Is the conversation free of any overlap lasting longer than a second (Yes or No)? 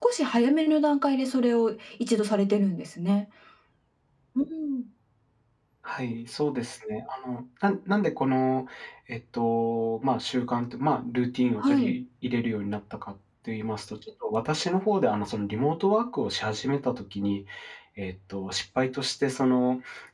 Yes